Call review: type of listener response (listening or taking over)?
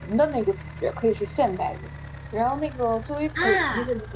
listening